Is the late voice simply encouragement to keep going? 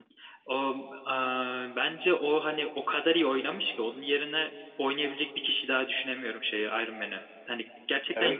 Yes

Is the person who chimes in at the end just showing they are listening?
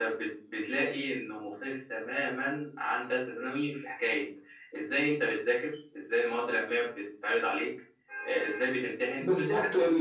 No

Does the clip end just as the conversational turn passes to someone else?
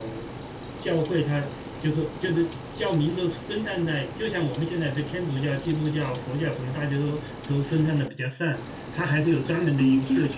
Yes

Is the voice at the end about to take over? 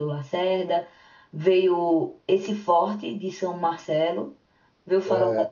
No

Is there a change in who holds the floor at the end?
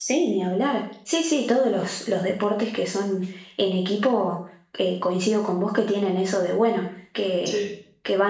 No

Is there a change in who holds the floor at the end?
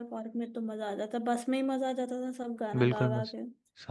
Yes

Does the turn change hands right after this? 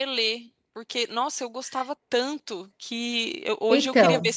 No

